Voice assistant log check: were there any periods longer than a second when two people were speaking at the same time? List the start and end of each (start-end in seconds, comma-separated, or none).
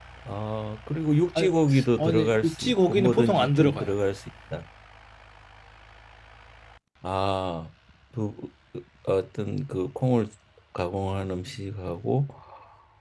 2.0-3.9